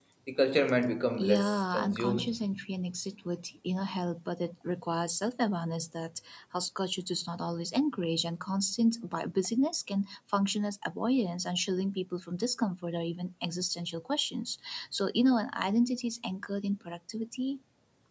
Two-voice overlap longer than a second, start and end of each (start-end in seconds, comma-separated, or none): 1.2-2.4